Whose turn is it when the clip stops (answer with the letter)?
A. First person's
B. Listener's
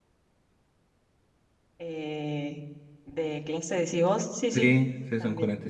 B